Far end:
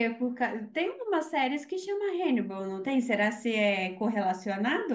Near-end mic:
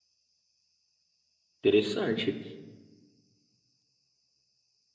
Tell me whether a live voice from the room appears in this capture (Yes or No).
Yes